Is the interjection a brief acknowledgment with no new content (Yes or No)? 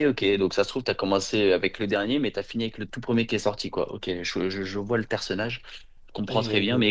Yes